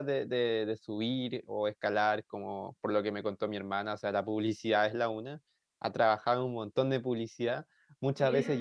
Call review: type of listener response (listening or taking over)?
listening